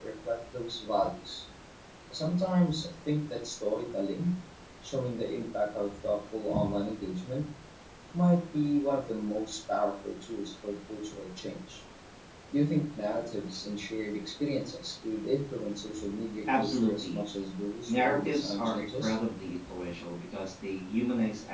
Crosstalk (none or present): present